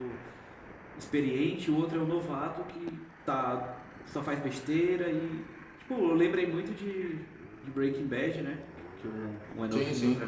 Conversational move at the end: listening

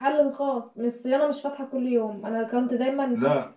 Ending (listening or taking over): listening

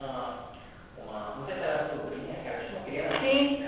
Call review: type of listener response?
taking over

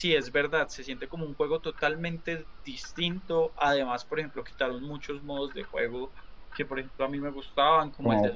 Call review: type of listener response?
listening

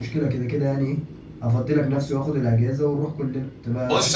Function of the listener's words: taking over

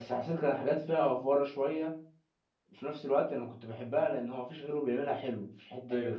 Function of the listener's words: listening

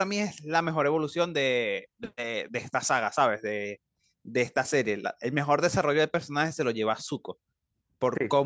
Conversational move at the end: listening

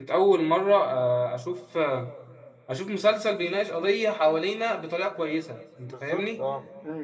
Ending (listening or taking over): taking over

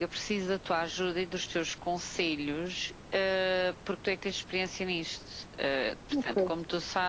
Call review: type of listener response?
listening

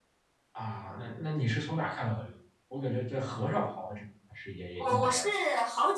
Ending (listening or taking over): taking over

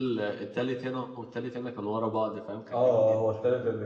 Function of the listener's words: taking over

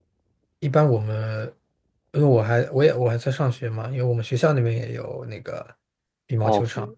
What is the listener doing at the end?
taking over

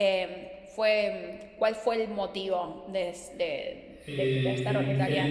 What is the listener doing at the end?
taking over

